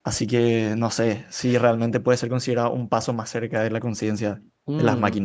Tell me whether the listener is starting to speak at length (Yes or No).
Yes